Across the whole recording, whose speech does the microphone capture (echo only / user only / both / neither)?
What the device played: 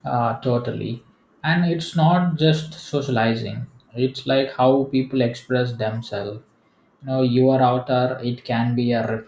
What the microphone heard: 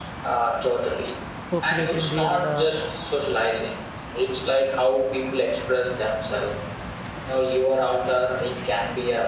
both